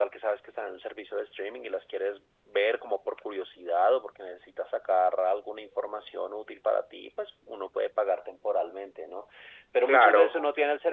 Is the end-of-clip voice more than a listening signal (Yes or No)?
No